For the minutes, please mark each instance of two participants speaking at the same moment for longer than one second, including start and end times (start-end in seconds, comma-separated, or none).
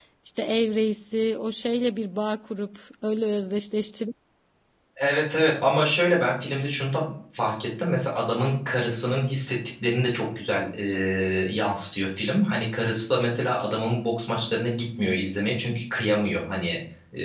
none